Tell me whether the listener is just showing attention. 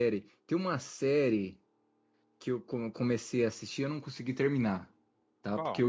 Yes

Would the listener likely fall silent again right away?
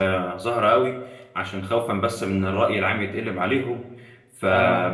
Yes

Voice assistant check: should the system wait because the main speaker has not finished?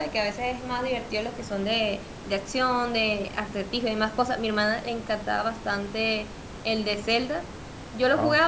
Yes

